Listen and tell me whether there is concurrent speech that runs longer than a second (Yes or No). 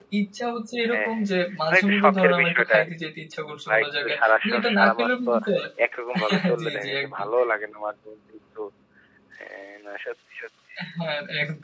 Yes